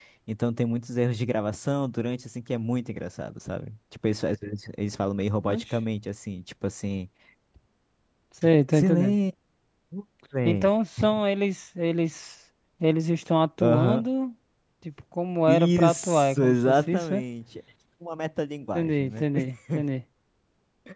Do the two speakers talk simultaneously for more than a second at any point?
Yes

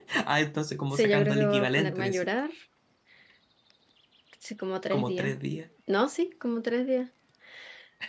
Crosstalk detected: Yes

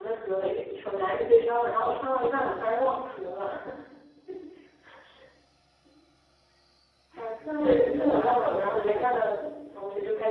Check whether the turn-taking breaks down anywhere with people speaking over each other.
Yes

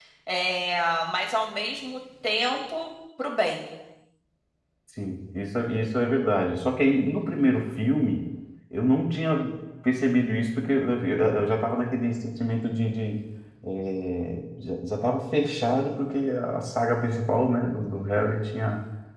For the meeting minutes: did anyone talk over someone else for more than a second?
No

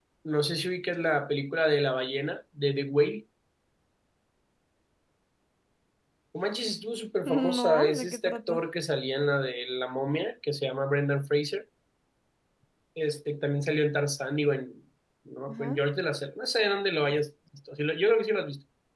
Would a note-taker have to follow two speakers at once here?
Yes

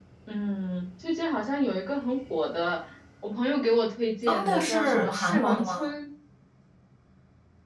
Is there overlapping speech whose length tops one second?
Yes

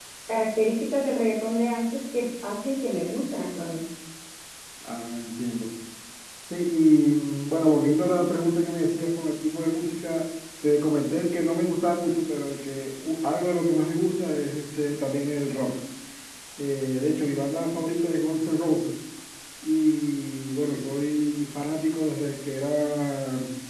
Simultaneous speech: No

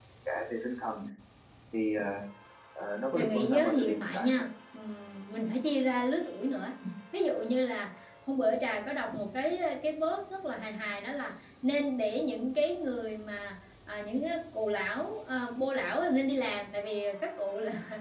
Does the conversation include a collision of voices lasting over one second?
Yes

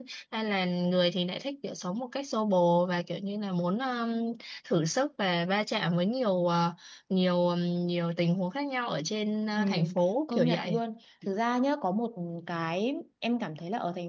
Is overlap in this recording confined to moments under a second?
Yes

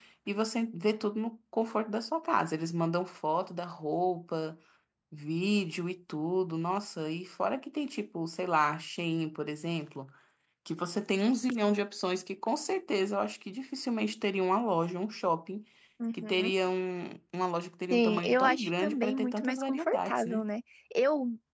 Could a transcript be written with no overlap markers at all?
No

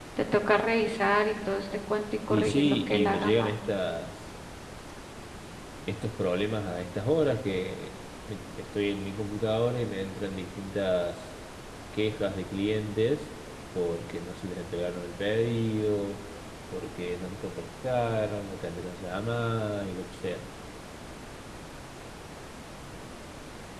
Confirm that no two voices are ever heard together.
No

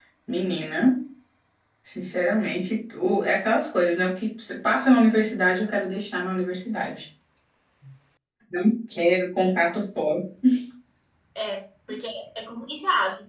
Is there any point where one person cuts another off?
No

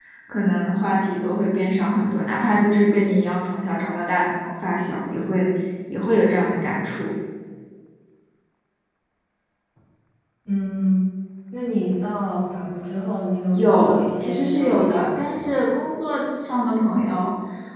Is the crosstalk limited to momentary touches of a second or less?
No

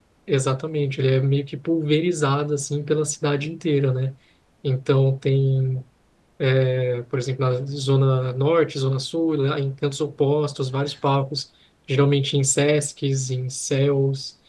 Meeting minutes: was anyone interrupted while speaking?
No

